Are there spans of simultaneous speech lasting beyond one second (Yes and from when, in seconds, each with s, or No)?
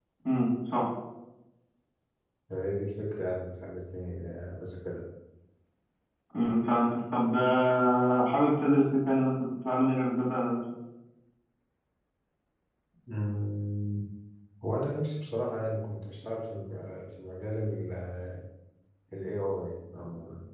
No